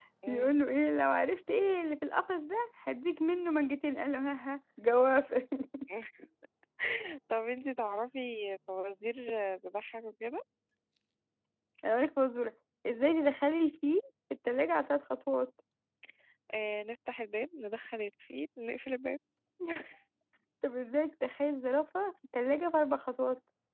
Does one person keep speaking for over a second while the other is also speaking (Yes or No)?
No